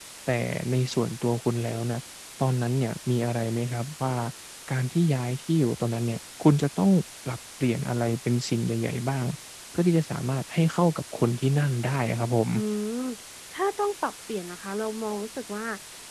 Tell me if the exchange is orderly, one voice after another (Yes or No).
Yes